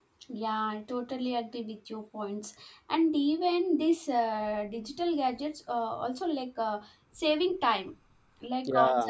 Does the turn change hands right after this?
No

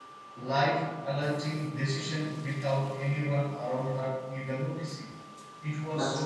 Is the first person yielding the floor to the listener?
No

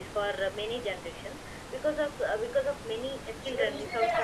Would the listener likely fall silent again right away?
Yes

